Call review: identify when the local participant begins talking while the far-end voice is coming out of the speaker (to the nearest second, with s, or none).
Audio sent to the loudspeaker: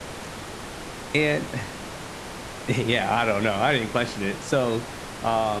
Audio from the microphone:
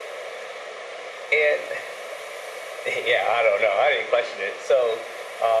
none